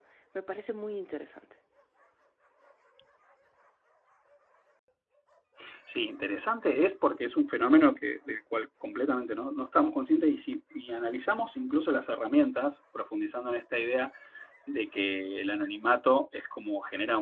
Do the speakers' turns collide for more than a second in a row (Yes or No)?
No